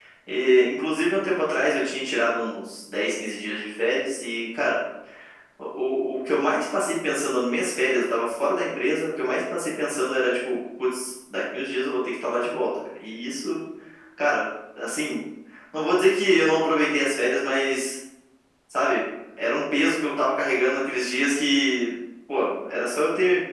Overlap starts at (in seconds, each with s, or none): none